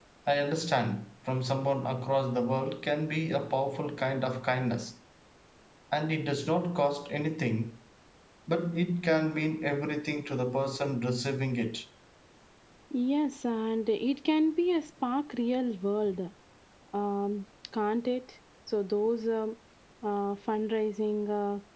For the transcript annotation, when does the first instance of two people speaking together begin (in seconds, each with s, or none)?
none